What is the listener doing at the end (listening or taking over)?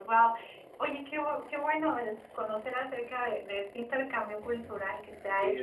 taking over